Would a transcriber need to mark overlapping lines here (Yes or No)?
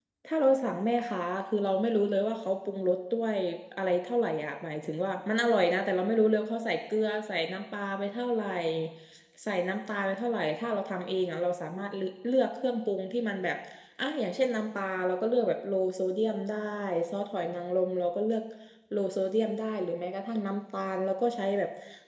No